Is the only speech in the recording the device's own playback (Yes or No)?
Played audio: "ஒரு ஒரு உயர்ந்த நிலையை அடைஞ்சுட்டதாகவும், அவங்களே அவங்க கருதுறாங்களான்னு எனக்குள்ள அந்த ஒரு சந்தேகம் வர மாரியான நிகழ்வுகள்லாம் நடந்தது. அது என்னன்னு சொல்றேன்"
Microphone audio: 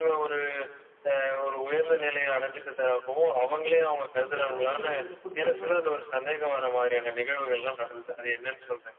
No